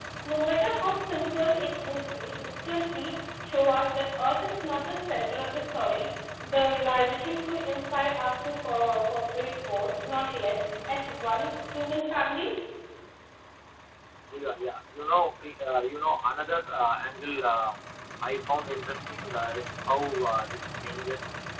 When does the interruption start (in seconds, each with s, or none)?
none